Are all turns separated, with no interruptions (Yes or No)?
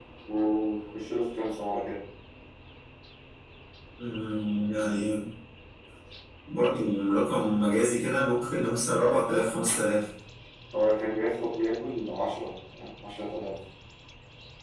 Yes